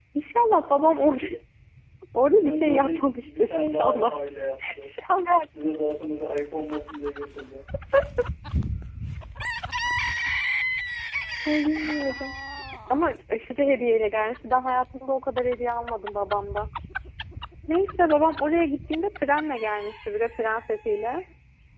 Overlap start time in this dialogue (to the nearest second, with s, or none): 2 s